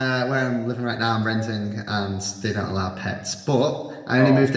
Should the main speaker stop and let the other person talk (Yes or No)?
No